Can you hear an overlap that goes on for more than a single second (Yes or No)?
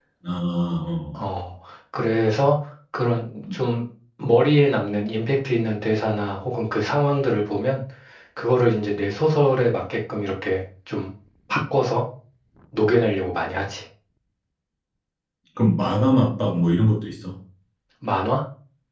No